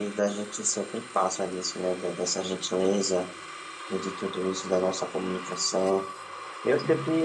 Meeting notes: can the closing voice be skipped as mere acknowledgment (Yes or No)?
Yes